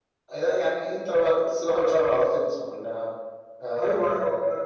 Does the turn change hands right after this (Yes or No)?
Yes